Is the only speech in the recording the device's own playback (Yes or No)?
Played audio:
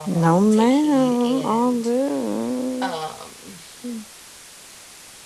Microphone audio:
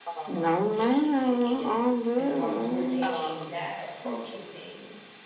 No